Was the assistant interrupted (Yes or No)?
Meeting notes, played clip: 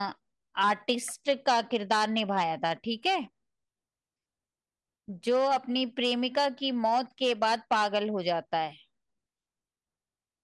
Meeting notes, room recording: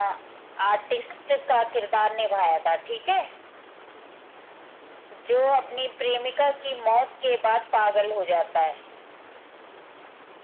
No